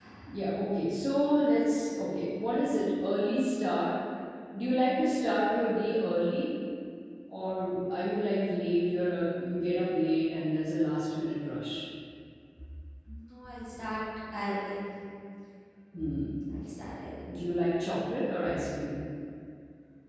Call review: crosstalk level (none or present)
none